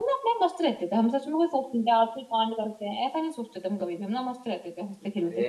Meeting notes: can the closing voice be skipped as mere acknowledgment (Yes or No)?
No